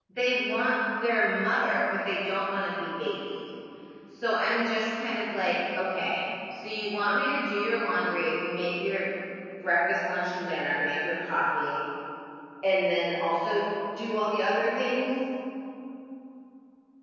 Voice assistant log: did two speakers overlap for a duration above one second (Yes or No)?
No